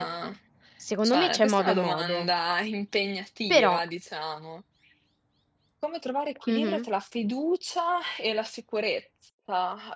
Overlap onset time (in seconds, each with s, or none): 1.0 s